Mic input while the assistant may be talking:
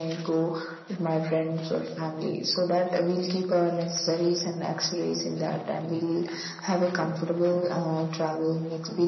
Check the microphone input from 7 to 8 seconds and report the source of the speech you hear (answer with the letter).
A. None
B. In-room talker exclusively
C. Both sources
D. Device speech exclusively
D